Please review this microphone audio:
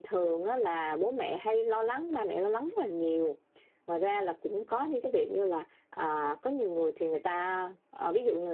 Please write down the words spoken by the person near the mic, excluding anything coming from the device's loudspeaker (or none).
none